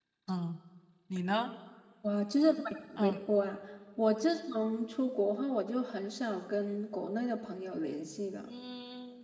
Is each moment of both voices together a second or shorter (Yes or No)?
Yes